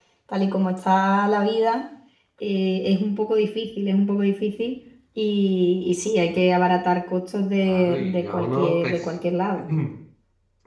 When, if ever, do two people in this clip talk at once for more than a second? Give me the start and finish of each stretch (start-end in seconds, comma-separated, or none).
7.6-9.1